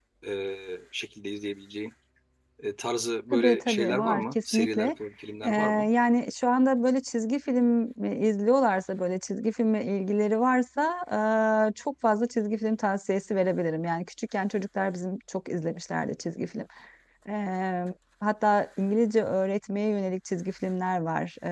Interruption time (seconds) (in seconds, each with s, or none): 3.3 s